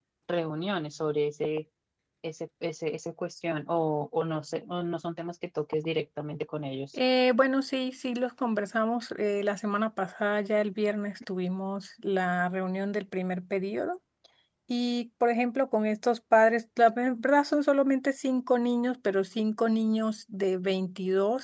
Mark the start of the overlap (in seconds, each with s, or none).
none